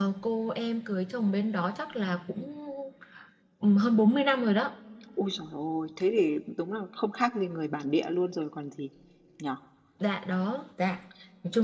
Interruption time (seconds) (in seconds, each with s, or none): none